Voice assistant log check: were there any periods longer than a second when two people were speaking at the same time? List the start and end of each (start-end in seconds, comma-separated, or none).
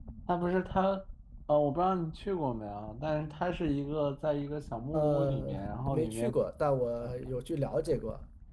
4.9-6.3